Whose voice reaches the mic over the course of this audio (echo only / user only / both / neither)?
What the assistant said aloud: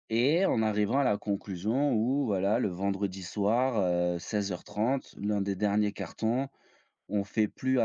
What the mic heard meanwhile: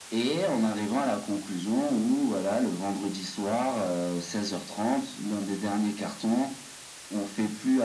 echo only